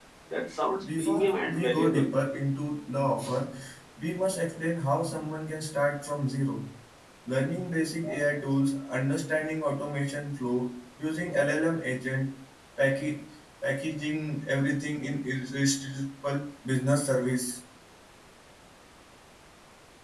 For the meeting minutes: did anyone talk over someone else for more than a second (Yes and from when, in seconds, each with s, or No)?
Yes, from 0.8 s